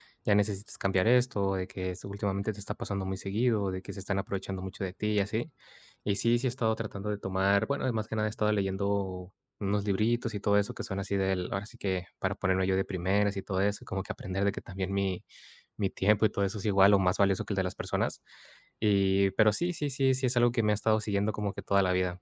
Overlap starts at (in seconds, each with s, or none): none